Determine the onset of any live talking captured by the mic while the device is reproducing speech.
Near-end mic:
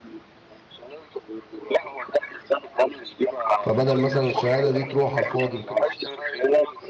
3.6 s

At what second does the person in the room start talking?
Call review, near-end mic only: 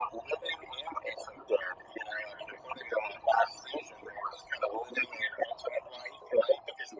none

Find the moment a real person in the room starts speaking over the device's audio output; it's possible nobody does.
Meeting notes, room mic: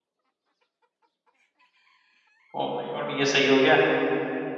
2.6 s

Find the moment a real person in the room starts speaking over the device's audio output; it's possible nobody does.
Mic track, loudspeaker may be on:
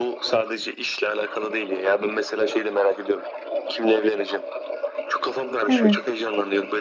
5.7 s

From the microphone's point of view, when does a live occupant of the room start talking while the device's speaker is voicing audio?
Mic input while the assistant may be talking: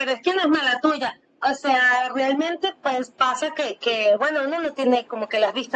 none

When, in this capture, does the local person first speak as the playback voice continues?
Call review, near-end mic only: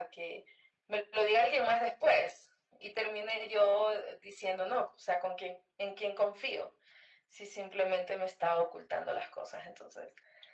none

